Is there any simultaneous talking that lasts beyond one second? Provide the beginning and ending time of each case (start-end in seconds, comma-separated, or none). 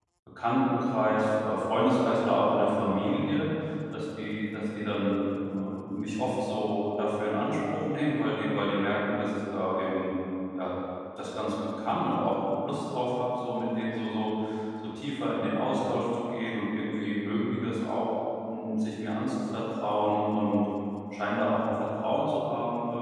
none